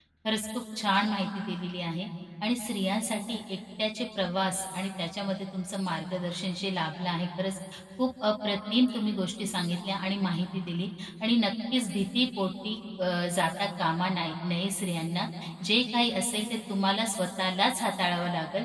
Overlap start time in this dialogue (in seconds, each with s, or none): none